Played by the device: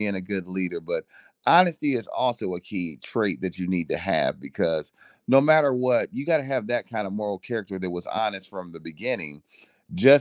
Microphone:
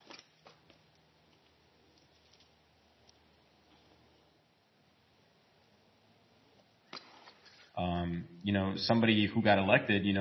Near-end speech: present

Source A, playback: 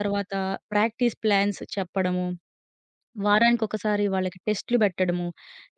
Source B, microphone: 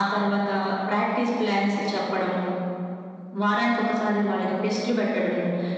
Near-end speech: none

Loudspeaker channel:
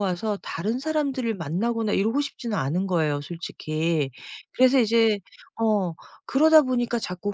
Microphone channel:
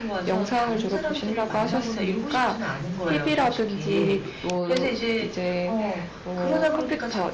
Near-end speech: present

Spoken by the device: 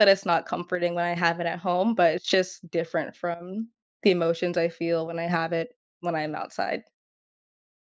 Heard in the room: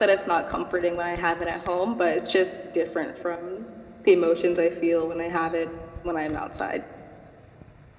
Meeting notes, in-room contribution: none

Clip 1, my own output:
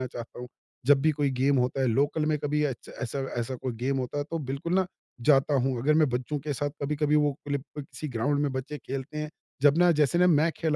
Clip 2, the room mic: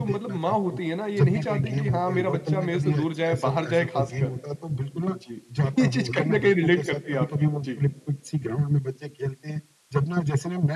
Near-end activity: present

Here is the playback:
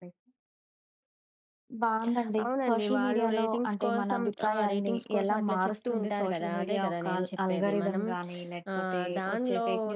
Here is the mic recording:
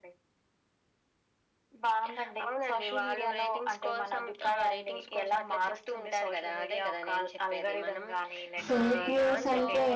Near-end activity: present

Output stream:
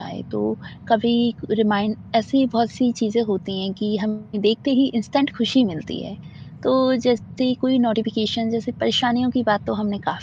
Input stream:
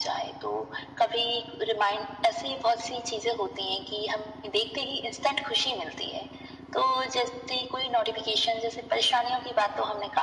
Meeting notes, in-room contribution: none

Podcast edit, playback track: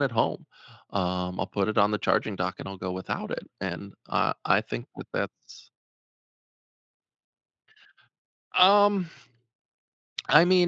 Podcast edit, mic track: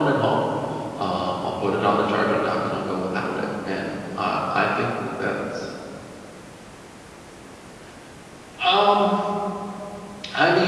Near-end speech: none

